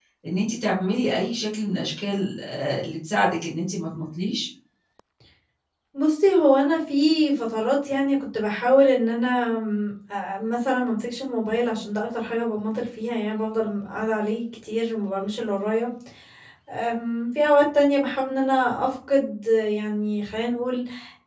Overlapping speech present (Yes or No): No